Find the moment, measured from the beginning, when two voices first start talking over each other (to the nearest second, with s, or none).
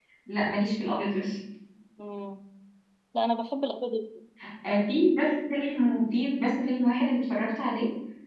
none